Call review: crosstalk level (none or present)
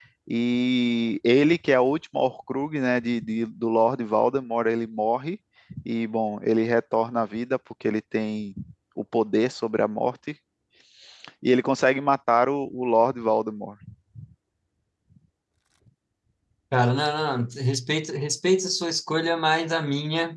none